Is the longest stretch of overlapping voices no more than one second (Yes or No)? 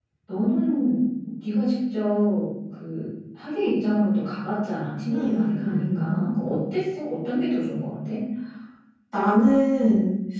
No